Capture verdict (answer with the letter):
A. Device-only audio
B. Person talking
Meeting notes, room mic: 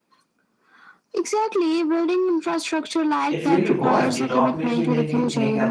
B